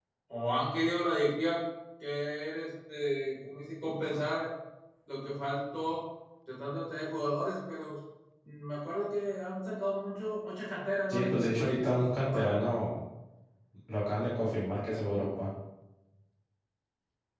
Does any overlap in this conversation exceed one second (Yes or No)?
Yes